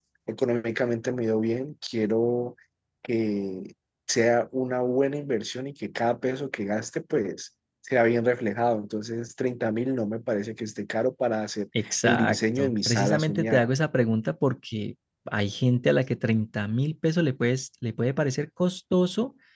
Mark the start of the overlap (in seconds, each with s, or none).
11.8 s